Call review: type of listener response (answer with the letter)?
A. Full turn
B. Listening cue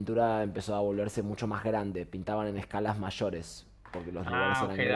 A